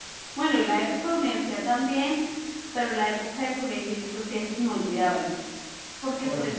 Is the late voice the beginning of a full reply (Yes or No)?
No